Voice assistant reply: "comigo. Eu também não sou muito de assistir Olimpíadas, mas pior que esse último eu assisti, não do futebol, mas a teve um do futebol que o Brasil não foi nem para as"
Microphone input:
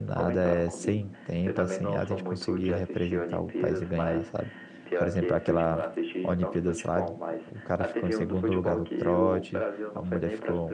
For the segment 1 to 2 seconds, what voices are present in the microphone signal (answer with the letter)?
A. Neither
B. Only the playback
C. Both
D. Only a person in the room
C